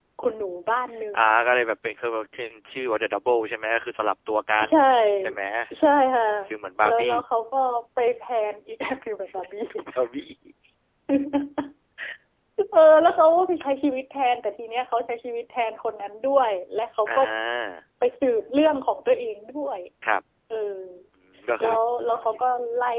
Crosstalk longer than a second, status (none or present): none